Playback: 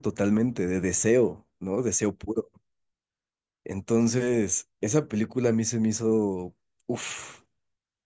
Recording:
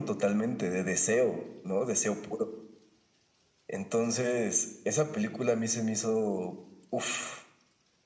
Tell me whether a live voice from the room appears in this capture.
No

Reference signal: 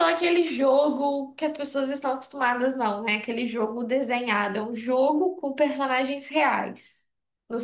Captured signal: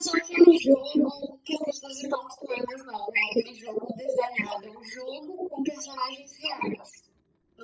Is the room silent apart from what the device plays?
Yes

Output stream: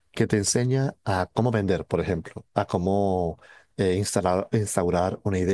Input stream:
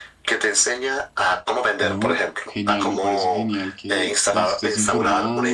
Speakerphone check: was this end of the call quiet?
No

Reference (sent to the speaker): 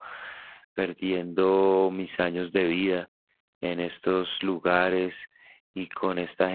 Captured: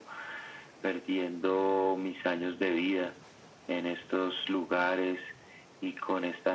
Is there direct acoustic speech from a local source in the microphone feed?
No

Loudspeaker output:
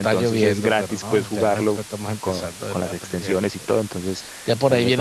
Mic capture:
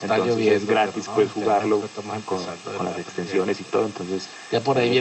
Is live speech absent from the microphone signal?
Yes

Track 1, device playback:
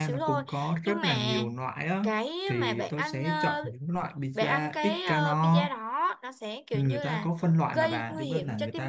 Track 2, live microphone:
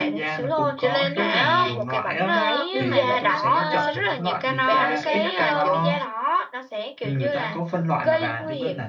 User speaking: Yes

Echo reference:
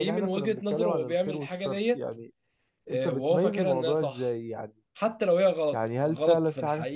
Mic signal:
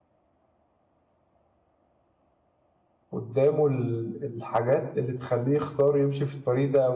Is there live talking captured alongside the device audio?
Yes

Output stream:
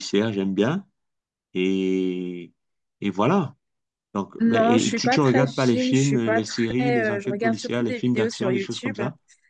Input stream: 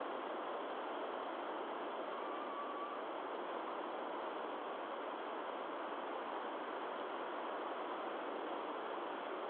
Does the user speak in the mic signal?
No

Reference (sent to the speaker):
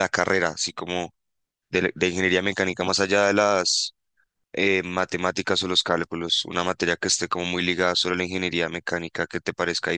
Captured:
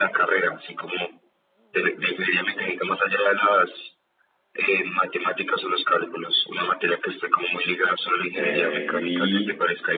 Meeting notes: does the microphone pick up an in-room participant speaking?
Yes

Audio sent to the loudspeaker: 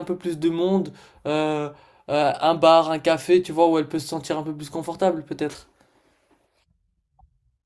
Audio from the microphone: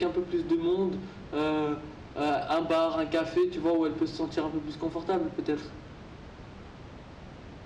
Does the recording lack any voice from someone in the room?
Yes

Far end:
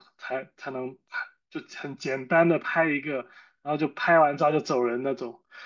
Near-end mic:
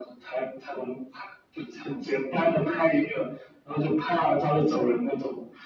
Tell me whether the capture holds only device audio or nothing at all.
Yes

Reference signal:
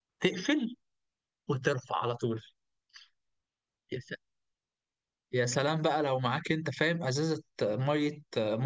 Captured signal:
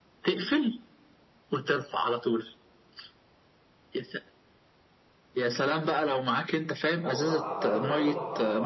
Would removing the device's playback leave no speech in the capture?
No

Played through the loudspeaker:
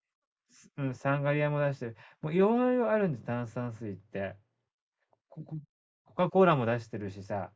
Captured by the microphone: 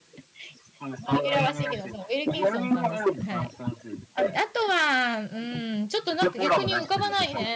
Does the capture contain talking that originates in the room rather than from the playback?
Yes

